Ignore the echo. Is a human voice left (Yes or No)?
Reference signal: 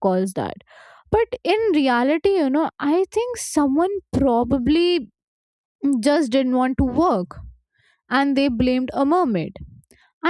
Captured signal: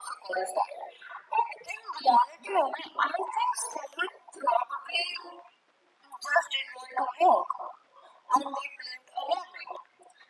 No